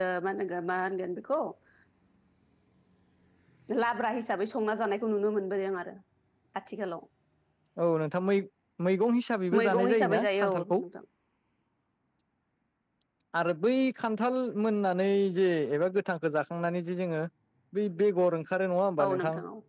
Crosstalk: present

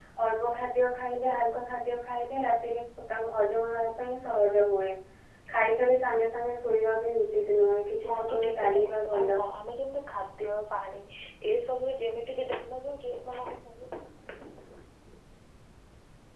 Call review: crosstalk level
present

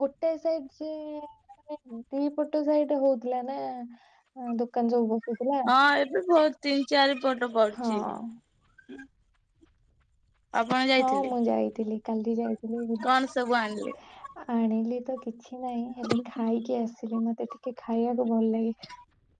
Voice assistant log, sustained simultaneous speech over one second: none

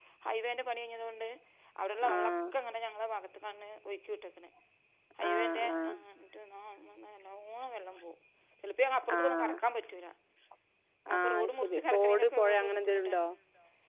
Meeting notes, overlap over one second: present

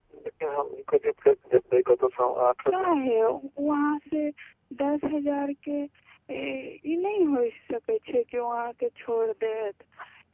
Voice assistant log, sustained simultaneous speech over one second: none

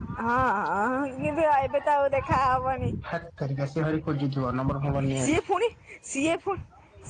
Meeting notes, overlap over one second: none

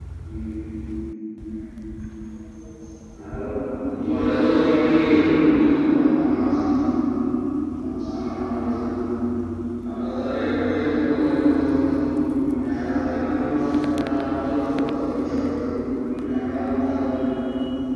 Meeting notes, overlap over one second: present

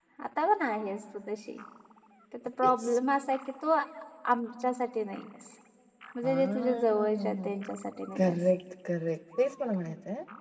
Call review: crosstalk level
present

